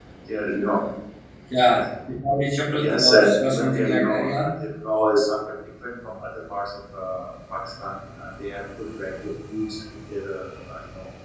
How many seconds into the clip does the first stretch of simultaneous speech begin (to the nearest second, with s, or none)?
3 s